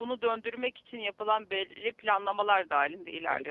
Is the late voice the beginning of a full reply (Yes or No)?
Yes